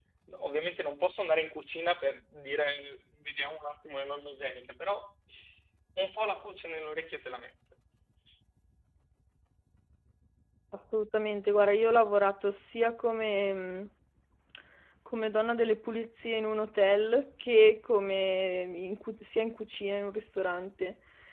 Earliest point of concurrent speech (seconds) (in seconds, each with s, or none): none